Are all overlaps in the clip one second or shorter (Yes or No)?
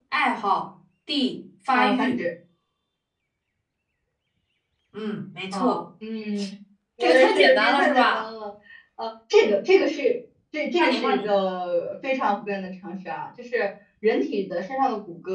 No